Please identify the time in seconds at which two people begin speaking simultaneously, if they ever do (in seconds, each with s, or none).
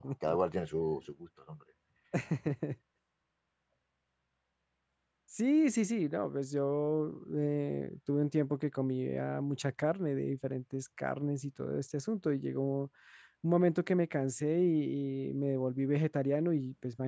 none